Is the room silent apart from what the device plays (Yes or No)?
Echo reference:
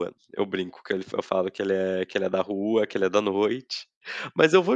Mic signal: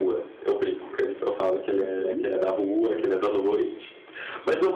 No